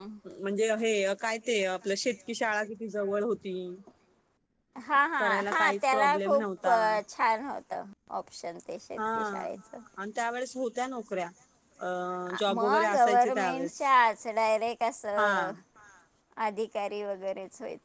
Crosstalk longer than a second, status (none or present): present